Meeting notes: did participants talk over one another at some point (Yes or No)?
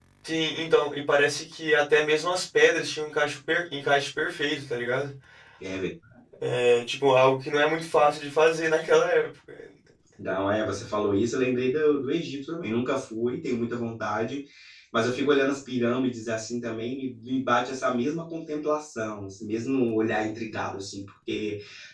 No